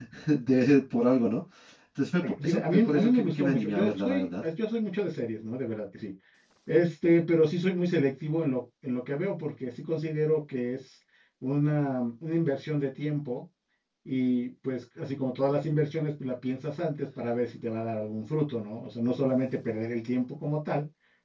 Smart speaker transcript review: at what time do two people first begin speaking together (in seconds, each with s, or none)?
2.2 s